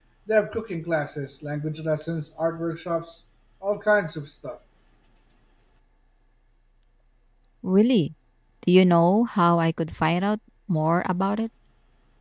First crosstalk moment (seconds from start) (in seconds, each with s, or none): none